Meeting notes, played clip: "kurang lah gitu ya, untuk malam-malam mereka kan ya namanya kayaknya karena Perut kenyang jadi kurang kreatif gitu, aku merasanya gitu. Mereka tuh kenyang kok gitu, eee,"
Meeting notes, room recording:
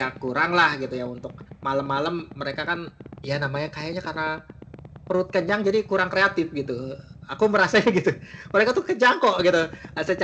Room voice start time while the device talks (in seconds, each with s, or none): none